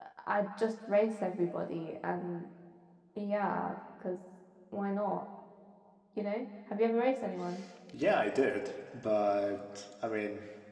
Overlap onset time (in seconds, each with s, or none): none